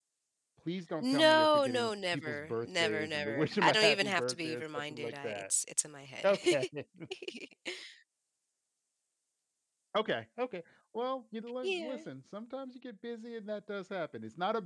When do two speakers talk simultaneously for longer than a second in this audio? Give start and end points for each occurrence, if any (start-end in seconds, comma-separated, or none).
1.0-5.4